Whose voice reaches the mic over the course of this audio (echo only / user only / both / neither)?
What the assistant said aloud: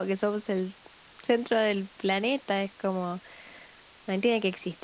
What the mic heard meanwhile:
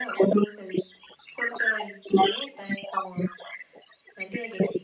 echo only